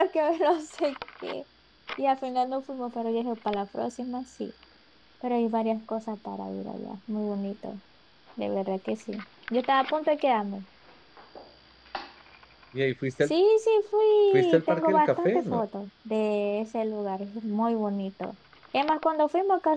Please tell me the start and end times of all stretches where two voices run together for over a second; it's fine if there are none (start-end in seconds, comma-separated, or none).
14.3-15.6